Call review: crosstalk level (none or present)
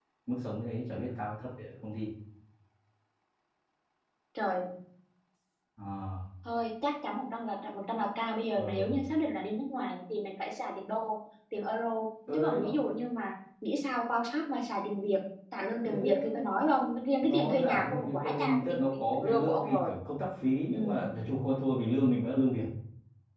present